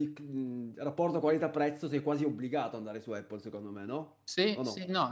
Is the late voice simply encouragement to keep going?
No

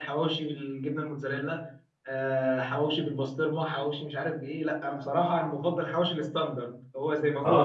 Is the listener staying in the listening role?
No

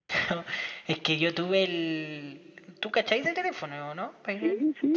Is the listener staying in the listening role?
No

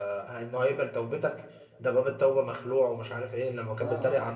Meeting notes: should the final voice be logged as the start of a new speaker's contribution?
No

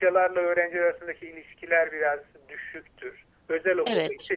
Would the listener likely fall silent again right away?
Yes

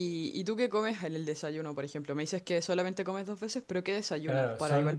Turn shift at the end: Yes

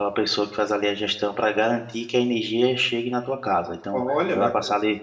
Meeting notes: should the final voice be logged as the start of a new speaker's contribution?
No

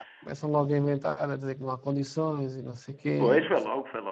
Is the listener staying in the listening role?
No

